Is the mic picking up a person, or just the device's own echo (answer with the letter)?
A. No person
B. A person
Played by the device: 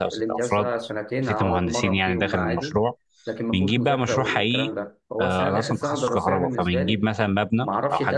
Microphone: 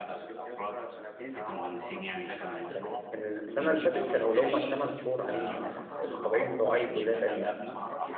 B